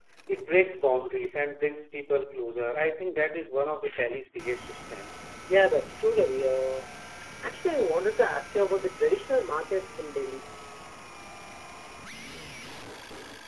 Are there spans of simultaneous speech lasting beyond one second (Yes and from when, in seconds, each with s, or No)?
No